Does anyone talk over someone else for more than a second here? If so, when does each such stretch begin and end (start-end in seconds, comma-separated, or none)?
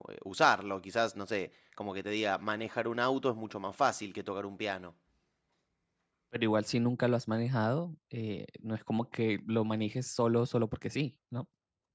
none